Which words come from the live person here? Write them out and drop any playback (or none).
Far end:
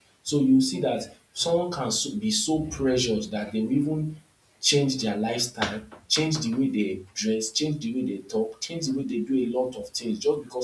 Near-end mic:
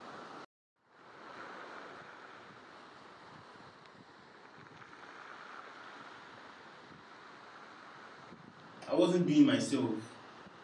I wasn't being myself,